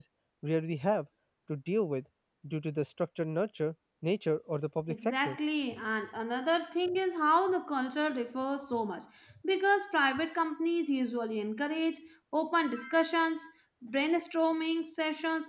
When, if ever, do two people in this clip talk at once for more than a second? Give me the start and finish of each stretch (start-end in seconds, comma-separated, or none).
none